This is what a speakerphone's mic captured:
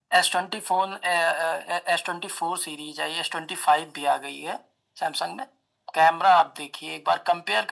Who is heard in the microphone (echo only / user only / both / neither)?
echo only